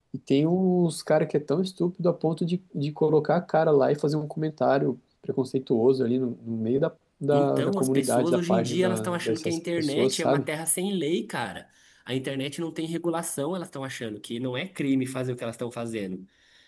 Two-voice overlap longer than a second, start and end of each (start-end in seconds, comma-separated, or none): 7.3-10.5